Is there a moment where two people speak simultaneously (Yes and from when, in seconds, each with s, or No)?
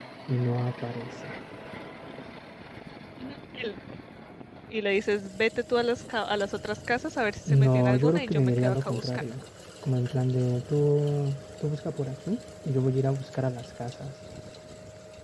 Yes, from 7.5 s